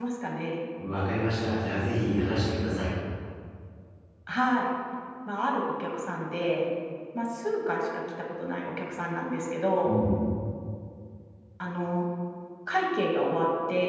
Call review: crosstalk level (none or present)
none